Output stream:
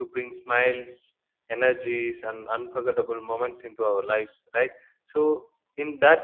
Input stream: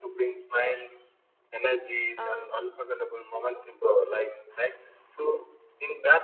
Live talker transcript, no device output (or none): um,